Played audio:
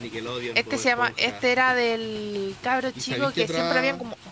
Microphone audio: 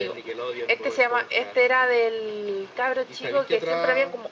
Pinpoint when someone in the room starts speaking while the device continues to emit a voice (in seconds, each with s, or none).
none